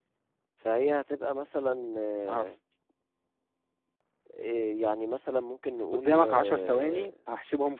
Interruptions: present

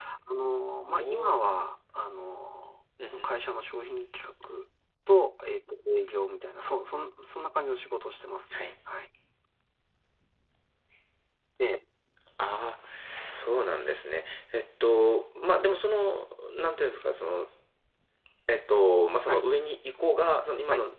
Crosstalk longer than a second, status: none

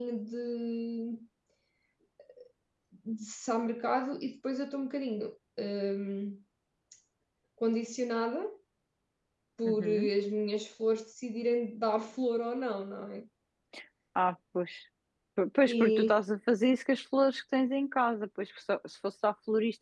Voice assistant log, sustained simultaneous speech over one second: none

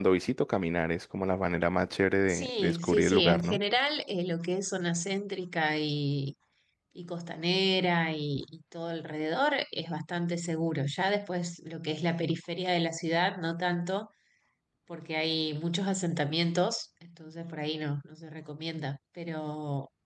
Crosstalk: present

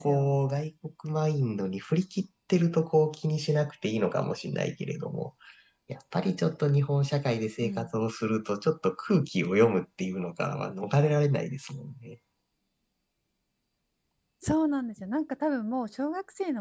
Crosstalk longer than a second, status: none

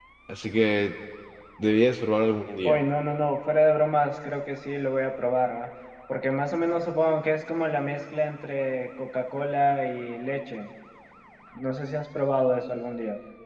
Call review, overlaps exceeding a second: none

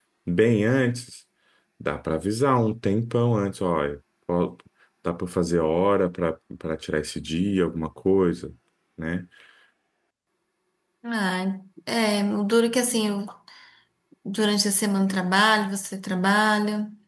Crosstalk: none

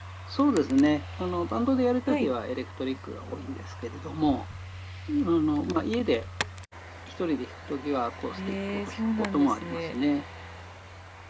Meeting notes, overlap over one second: present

